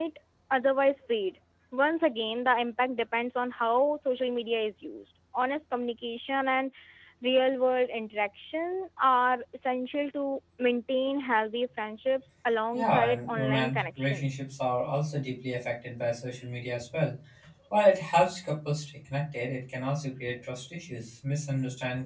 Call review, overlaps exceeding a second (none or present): present